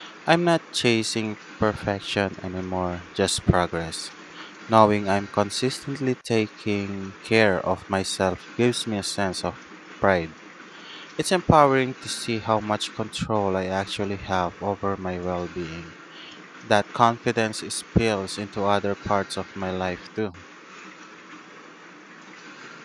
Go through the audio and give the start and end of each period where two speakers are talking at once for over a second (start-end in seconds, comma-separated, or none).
none